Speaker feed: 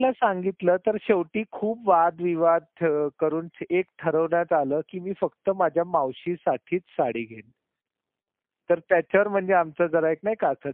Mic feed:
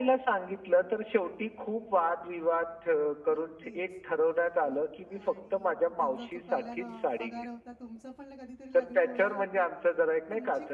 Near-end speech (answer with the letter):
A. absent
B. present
B